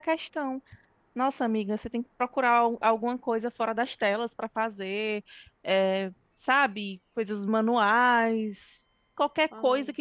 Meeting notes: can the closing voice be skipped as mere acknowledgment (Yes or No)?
Yes